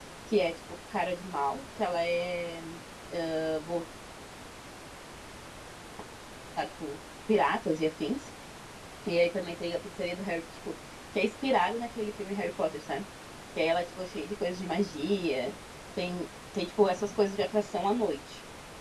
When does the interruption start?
none

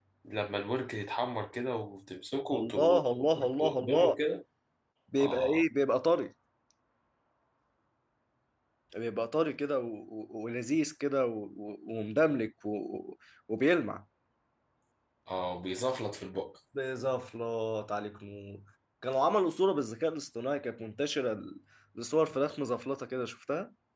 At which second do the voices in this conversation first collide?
2.5 s

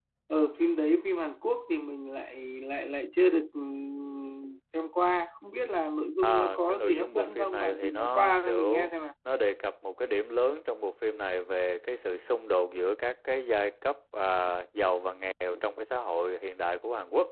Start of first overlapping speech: 6.2 s

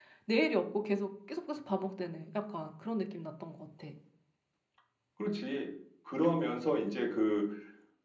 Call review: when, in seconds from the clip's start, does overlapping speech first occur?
none

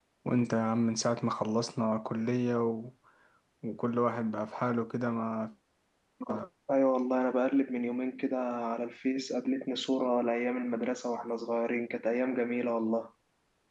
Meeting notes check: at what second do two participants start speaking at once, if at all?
none

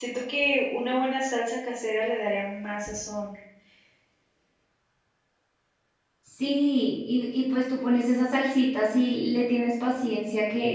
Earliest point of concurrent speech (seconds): none

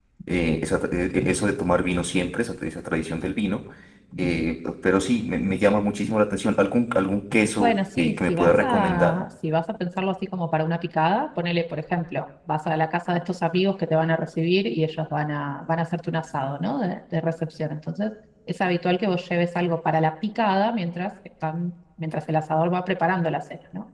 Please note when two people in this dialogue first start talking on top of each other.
7.6 s

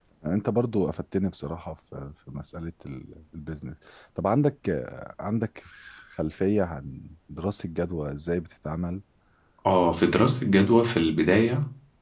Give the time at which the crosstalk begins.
none

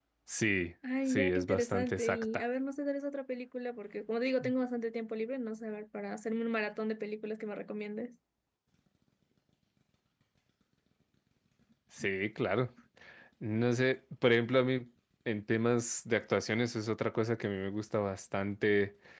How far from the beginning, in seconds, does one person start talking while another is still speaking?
1.1 s

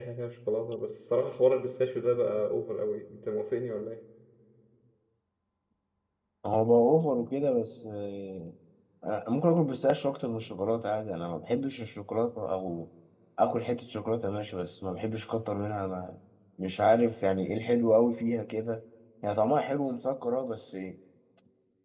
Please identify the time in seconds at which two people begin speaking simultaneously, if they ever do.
none

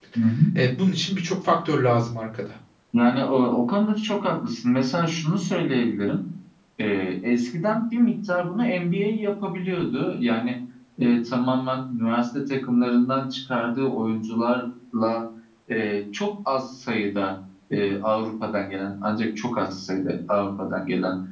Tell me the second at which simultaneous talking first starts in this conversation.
none

